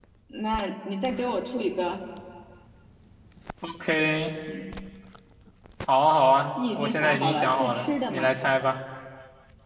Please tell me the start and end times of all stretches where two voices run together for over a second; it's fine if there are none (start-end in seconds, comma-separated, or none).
6.8-8.3